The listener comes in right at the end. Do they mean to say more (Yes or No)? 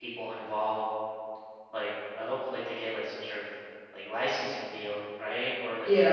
Yes